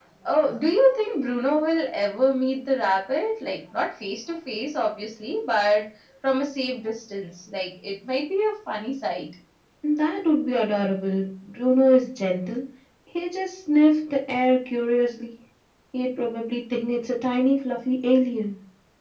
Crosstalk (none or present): none